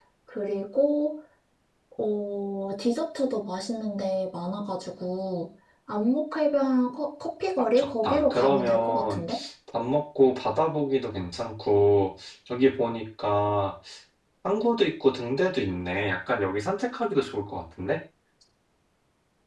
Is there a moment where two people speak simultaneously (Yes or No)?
Yes